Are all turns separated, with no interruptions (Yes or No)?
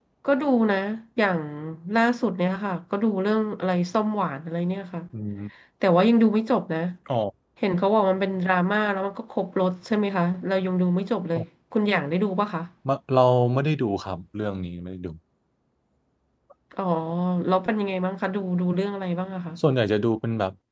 Yes